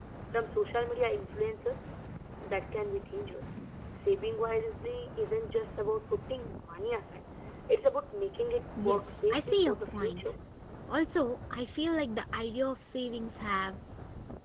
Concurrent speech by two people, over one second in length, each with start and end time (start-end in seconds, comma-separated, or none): 8.8-10.3